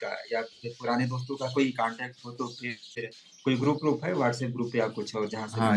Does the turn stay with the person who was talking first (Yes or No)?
No